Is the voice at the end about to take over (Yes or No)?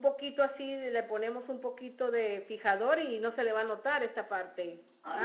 Yes